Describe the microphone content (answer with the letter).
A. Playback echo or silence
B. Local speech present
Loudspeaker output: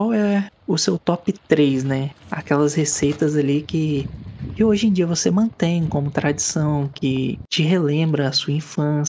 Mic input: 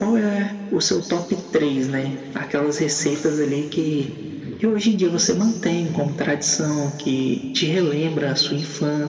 A